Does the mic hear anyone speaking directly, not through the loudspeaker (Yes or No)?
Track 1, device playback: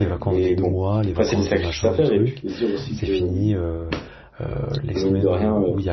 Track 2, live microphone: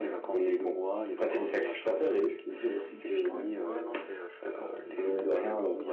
Yes